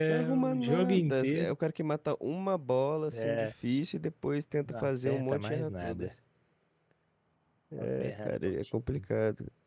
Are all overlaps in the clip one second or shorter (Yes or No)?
No